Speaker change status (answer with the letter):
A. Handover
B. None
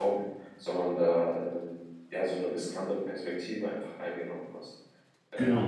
A